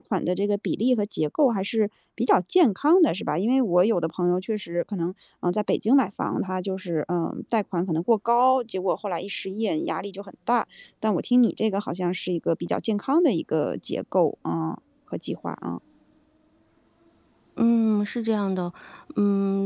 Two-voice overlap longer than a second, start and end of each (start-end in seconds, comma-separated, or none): none